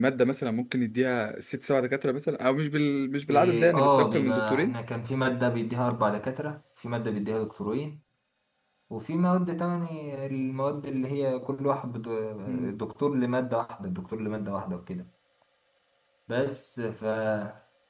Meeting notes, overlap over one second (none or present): present